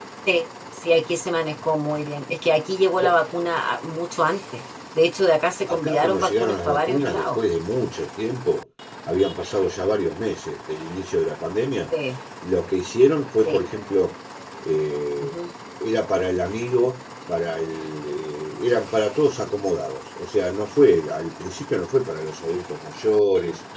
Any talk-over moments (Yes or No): Yes